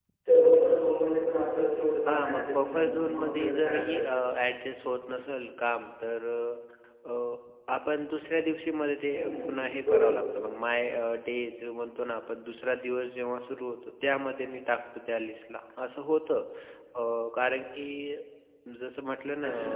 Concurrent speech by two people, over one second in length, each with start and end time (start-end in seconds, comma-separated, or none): 2.1-4.0